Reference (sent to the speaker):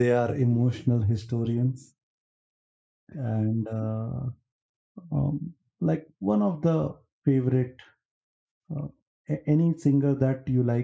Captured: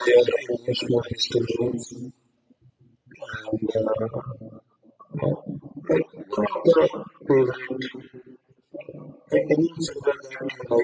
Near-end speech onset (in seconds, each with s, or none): none